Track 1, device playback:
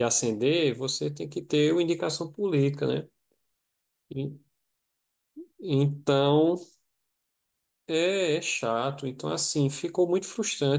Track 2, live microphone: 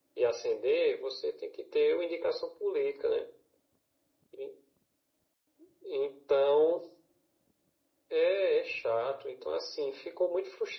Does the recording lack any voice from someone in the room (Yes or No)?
Yes